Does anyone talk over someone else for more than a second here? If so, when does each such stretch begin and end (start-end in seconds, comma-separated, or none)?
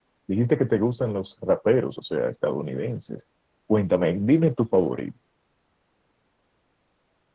none